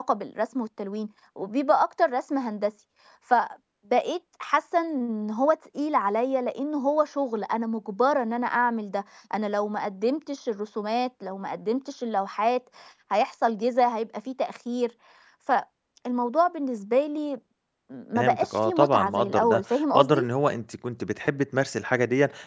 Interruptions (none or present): present